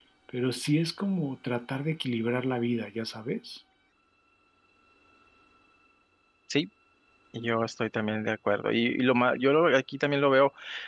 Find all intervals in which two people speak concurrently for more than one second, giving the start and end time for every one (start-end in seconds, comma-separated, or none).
none